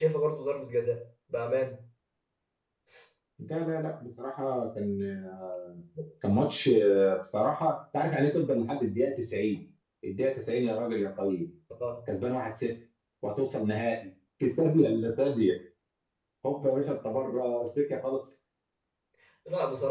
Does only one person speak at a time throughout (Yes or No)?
Yes